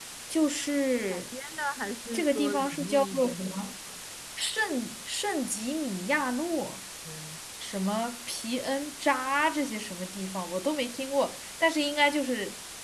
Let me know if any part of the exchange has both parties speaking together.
Yes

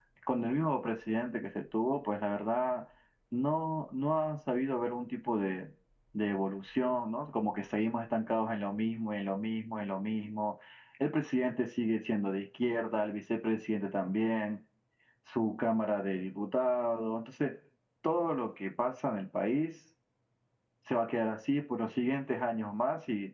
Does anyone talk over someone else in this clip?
No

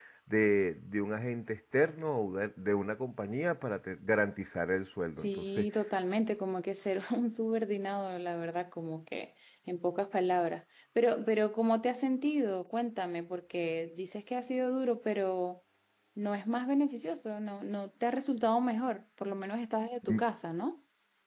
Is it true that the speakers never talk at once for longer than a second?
Yes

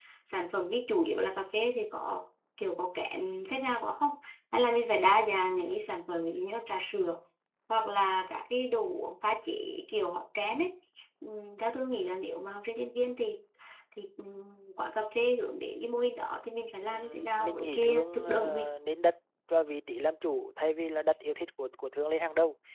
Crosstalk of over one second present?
Yes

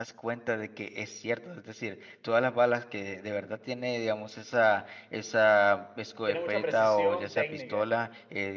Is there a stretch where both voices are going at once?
Yes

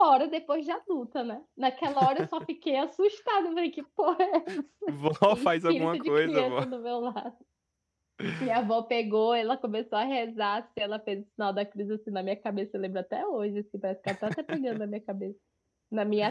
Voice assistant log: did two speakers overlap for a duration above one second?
Yes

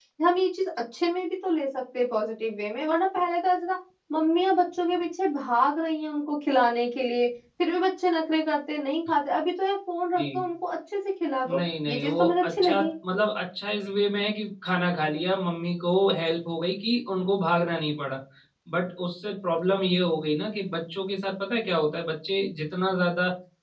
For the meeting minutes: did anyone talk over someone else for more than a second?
Yes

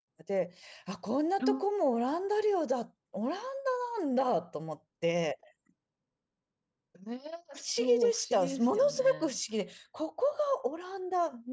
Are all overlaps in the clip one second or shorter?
No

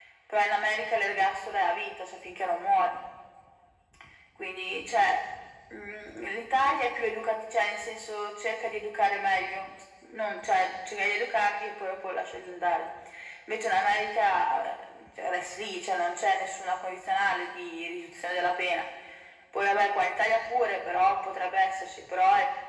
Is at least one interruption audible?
No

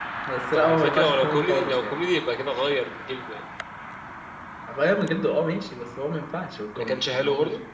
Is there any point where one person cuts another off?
Yes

